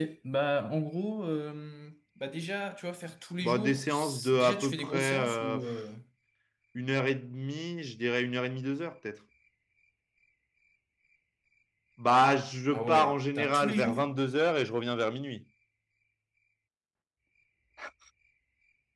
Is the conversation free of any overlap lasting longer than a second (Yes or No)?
No